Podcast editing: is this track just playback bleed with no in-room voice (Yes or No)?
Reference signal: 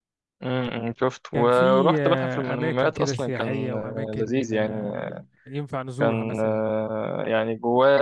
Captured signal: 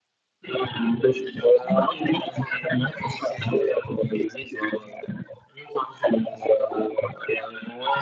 Yes